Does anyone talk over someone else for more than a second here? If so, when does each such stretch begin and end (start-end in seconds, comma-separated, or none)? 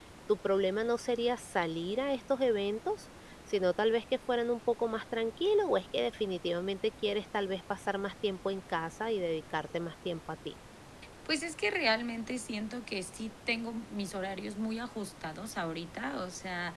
none